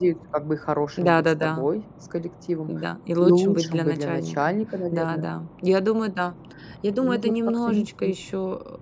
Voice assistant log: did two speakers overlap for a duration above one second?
Yes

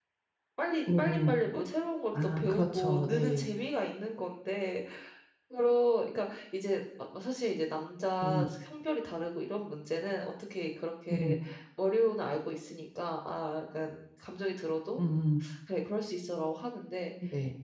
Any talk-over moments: Yes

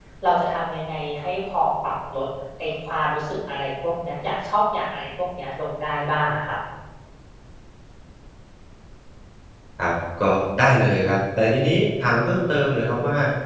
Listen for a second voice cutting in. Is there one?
No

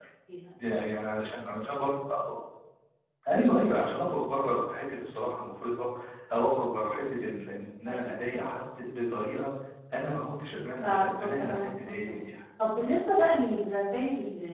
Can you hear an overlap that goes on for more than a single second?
Yes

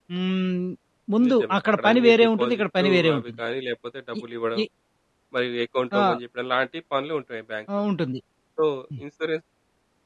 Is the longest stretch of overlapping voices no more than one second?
No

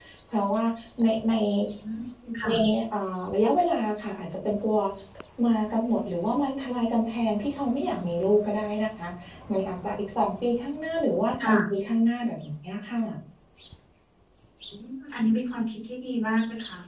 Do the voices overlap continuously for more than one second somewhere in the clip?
No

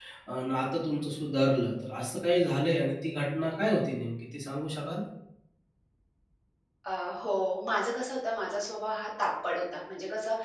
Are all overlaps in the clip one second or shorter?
Yes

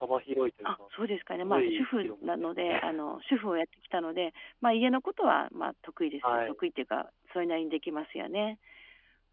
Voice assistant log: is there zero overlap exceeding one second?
No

